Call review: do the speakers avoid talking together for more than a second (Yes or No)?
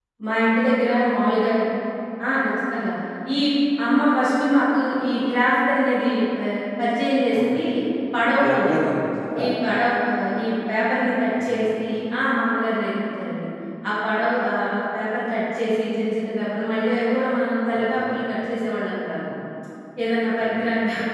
Yes